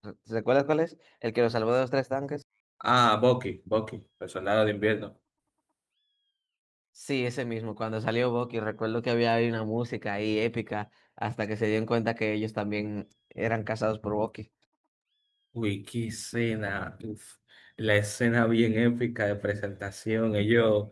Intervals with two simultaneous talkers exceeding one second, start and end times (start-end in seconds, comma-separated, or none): none